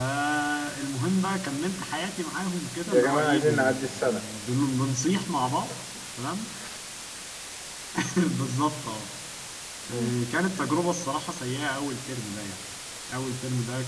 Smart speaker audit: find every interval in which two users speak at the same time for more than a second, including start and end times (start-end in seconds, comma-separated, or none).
2.9-4.2